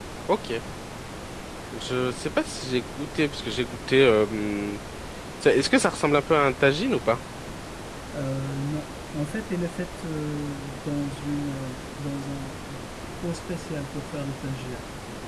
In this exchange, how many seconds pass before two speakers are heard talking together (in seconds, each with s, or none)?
none